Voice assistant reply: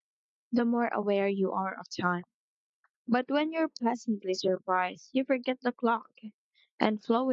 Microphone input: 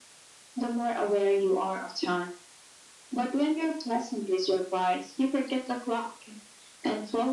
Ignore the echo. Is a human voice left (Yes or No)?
No